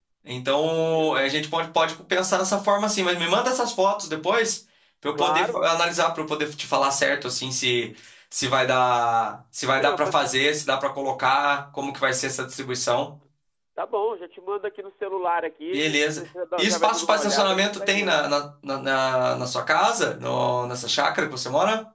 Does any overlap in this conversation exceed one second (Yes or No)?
Yes